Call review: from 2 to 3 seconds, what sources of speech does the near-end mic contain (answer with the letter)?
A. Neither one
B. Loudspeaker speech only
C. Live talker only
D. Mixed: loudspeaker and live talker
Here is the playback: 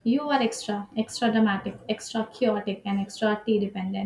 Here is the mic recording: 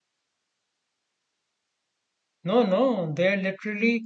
C